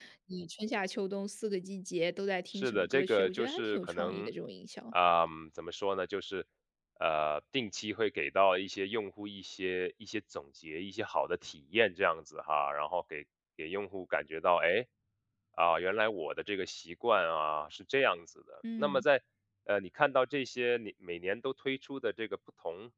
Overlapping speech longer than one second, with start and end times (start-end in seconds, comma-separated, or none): 2.5-4.3